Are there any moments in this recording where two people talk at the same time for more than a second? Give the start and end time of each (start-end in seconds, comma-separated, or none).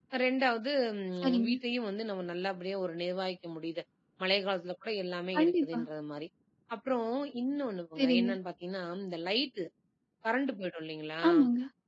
none